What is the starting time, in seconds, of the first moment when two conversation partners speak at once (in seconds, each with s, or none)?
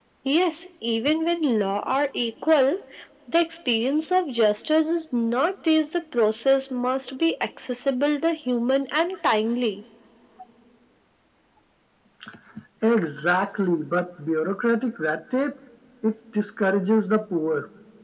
none